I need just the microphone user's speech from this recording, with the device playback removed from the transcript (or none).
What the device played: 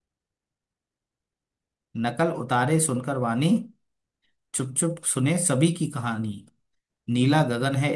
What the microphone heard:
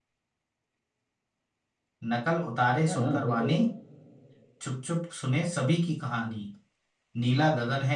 ना ना अभी तो